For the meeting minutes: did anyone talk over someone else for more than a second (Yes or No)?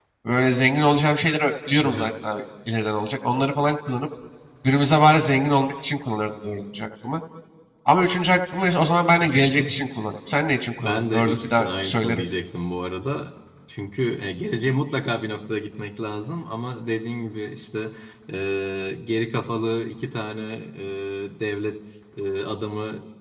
Yes